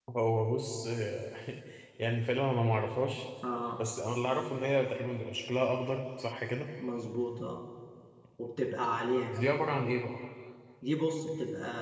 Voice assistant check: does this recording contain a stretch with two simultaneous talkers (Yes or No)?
No